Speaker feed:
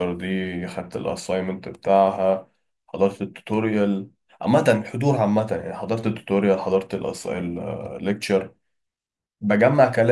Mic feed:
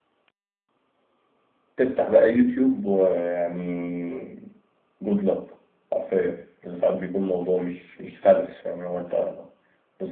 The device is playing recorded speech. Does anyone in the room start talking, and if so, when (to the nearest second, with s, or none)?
2 s